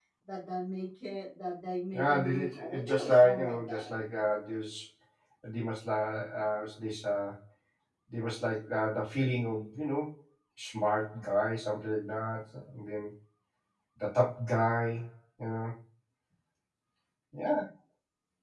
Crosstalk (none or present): present